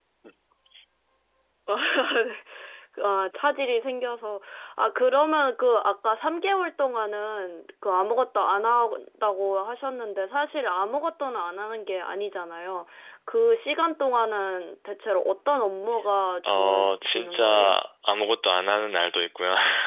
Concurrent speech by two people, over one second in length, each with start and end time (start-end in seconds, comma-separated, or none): 16.4-17.8